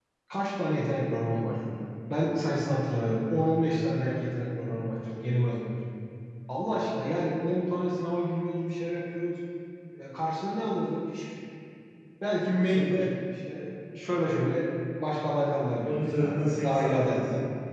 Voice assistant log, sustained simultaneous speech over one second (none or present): present